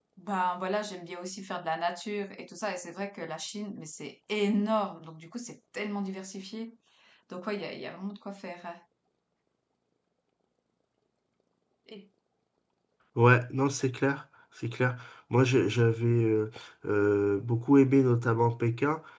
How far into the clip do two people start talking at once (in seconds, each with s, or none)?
none